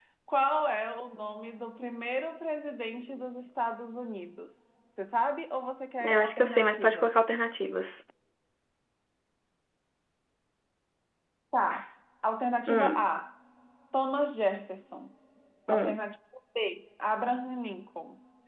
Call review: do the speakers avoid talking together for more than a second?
No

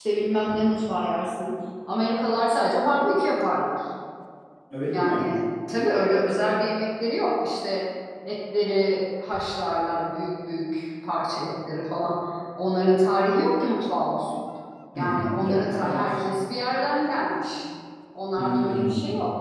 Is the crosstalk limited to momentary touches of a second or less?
No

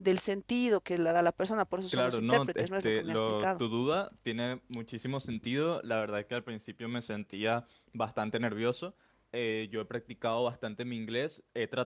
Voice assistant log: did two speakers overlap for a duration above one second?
Yes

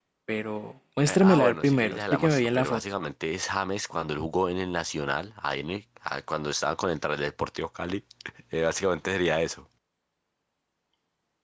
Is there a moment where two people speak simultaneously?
Yes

